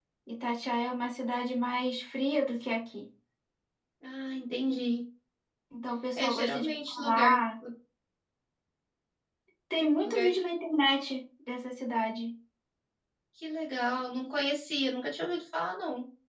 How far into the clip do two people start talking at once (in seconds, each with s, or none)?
6.2 s